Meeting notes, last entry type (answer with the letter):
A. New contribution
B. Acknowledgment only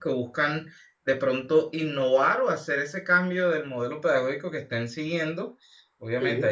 B